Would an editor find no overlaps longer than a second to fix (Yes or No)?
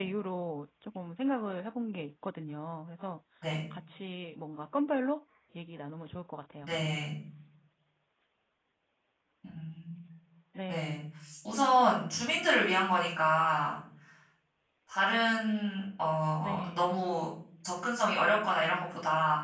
Yes